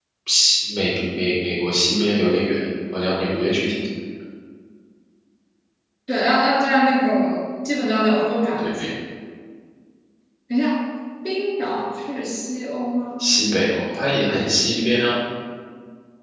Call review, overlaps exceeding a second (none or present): none